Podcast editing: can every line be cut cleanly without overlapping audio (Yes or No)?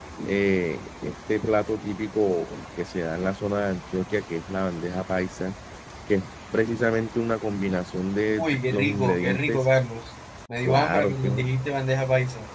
No